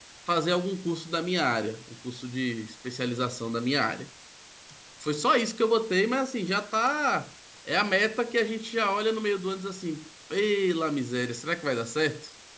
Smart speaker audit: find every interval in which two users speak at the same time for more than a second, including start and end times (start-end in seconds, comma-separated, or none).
none